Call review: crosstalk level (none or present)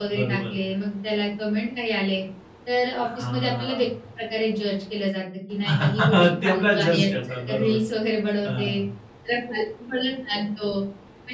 present